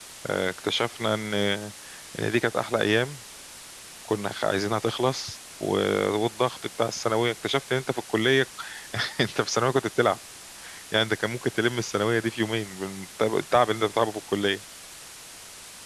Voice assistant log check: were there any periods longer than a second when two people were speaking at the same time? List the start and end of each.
none

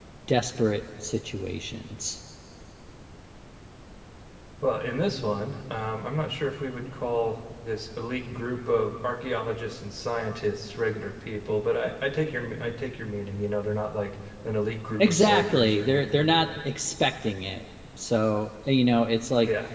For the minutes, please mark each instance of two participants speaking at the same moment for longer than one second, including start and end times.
15.0-16.5

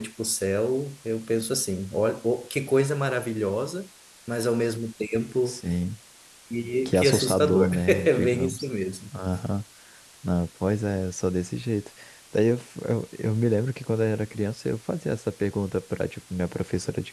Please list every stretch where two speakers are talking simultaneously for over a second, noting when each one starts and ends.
6.8-8.7

